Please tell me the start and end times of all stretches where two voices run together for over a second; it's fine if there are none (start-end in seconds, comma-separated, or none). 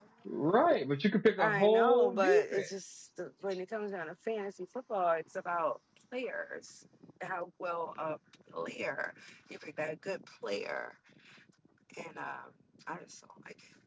1.4-2.7